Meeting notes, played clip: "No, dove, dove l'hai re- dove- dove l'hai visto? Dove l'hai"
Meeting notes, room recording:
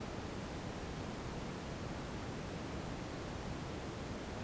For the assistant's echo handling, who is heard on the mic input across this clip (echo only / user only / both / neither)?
neither